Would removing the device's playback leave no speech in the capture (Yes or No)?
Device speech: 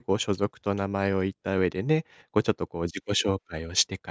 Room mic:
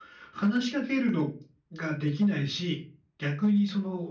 No